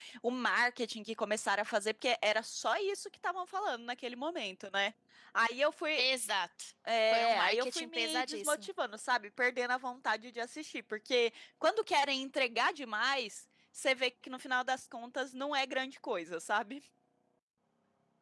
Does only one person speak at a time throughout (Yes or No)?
No